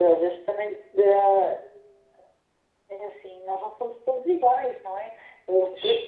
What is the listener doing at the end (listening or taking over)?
listening